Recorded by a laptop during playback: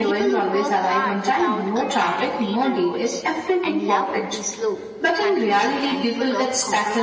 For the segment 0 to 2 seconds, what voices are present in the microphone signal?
both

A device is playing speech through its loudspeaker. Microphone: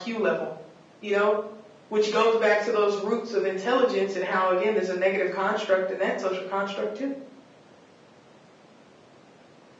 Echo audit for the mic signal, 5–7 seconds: echo only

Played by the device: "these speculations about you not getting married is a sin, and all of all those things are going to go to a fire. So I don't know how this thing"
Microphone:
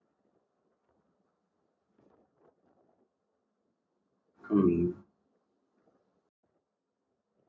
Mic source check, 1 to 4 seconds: neither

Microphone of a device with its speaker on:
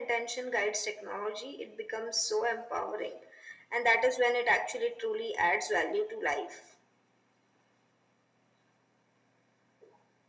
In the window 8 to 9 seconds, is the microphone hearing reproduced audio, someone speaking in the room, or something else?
neither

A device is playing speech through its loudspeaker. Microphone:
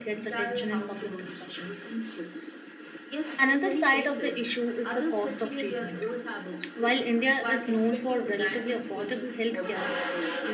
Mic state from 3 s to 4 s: both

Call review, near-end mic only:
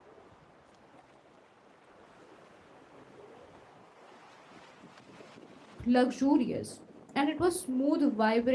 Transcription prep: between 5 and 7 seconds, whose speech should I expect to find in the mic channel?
user only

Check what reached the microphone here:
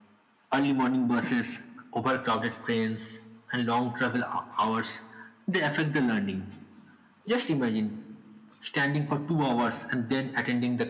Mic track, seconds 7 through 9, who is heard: echo only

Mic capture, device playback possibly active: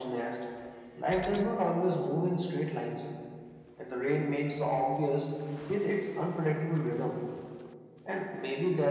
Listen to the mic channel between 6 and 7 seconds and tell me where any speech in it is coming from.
echo only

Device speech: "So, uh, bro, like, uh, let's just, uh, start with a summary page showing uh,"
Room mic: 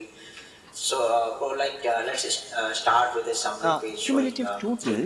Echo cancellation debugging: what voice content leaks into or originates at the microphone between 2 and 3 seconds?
echo only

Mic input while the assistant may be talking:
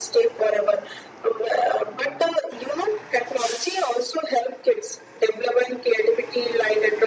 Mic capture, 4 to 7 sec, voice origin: echo only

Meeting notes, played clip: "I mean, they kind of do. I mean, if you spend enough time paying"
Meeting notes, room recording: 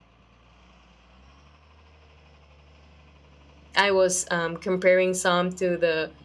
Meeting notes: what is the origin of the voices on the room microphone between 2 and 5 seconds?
user only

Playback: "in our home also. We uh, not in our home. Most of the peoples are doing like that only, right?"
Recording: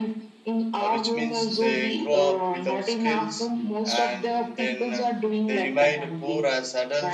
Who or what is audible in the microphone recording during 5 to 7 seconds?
both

